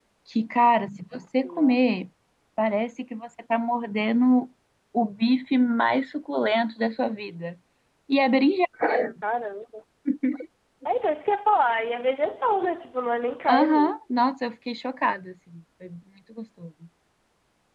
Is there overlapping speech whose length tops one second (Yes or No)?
No